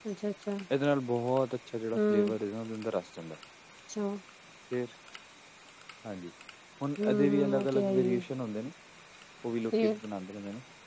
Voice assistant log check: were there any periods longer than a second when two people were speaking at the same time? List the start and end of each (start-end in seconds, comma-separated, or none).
7.0-8.2